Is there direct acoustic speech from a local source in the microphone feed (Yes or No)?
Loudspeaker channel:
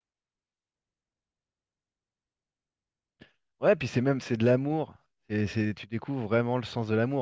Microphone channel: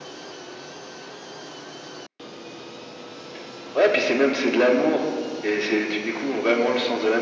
No